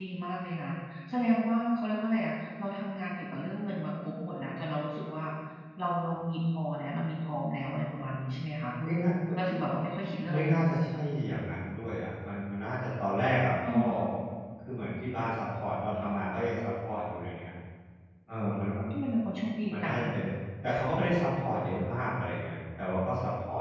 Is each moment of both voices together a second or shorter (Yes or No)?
Yes